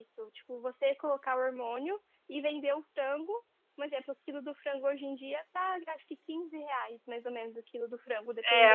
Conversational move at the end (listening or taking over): taking over